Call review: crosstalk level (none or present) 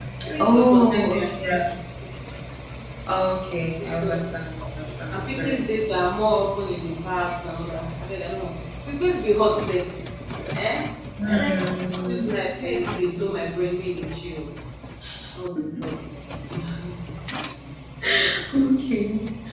present